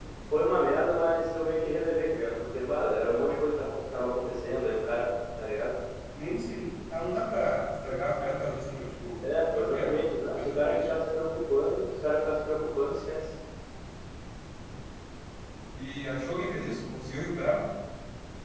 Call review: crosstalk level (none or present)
present